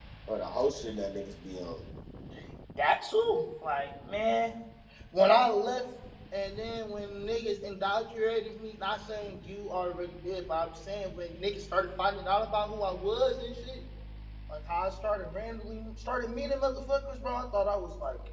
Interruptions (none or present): none